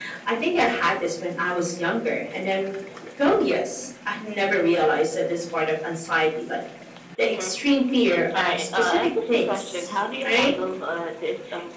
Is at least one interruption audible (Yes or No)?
Yes